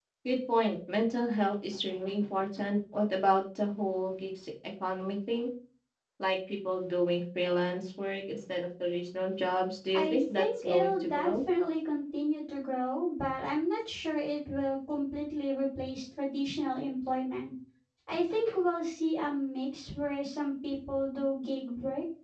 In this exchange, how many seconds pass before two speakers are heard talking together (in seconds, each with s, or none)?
9.9 s